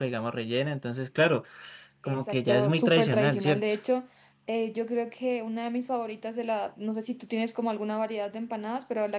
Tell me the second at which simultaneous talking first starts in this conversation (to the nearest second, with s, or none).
2 s